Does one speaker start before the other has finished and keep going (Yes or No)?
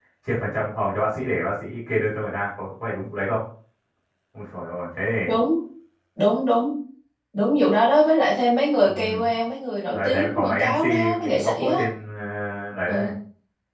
Yes